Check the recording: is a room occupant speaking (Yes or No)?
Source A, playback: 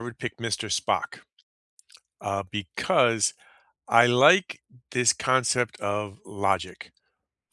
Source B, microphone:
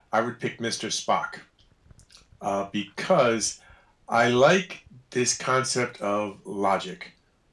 No